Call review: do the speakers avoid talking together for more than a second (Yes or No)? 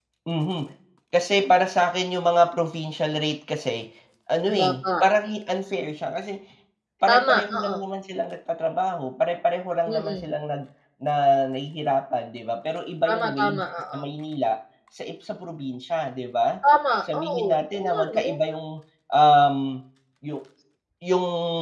No